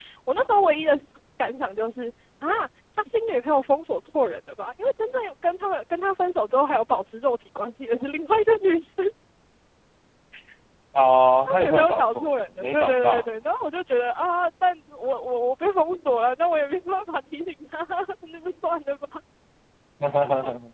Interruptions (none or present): present